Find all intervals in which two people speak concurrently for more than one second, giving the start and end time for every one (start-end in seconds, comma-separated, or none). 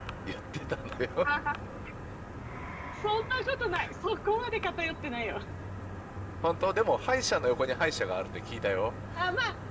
none